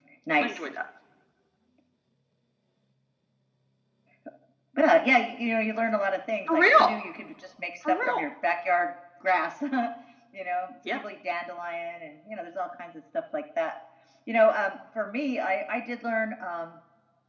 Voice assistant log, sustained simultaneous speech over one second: none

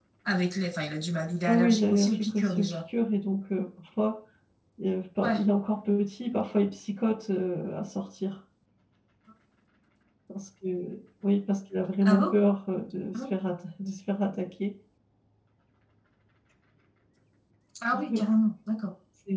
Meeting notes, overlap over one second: present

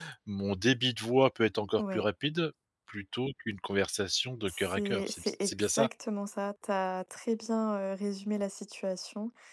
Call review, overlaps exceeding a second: present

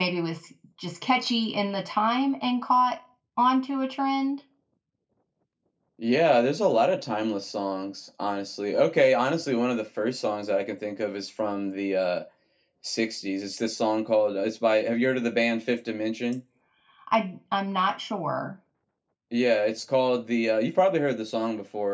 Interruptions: none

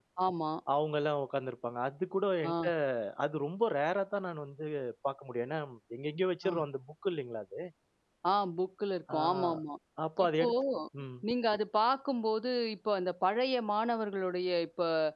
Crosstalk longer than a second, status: none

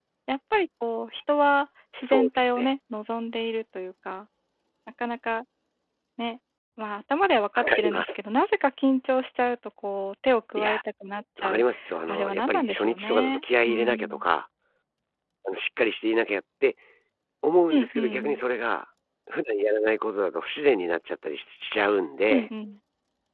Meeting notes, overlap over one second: present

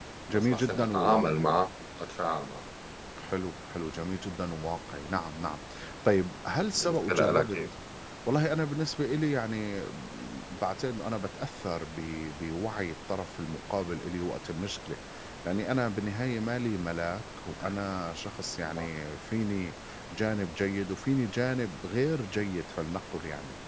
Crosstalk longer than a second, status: present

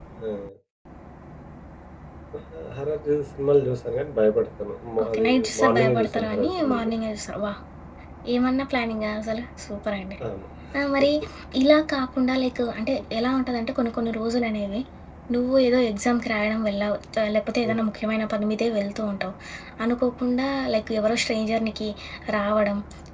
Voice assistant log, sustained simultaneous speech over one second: present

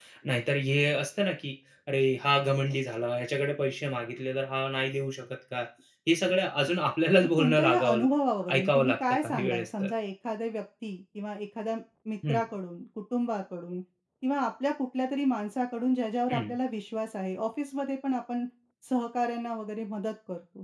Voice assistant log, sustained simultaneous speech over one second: present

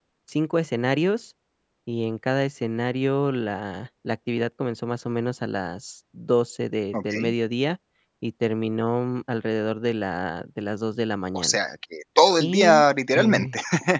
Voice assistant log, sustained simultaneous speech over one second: none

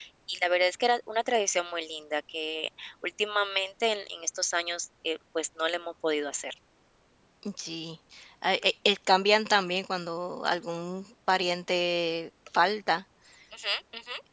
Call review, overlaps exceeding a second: none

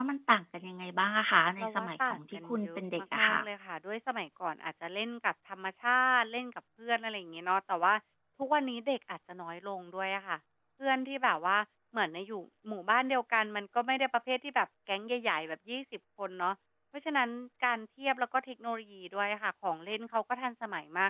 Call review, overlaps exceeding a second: present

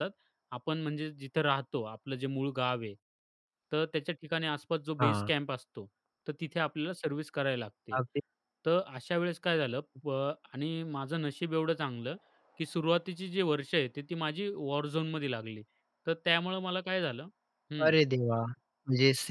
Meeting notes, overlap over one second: none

